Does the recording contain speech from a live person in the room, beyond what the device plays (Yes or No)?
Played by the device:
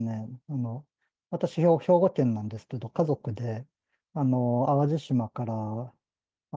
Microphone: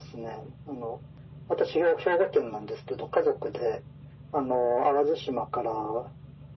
No